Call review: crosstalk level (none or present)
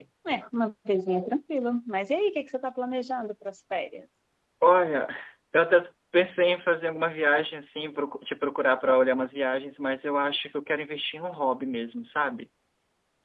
none